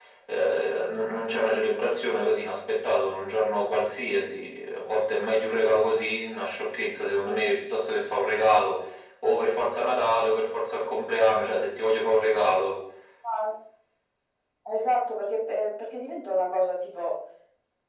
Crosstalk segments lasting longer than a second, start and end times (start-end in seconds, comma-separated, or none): none